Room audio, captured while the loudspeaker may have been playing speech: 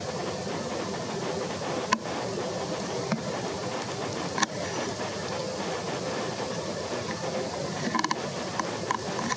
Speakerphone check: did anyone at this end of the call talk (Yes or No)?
No